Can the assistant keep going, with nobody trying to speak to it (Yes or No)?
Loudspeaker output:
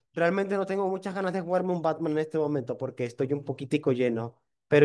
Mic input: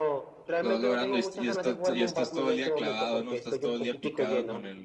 No